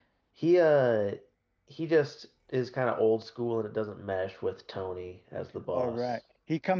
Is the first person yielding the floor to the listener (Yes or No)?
Yes